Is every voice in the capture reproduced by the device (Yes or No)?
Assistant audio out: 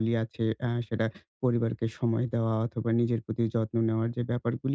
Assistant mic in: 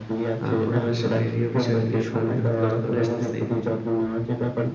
No